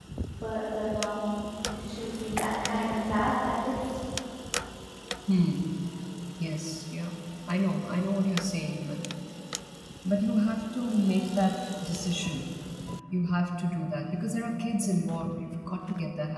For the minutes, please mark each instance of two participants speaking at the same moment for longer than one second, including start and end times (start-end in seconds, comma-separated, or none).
none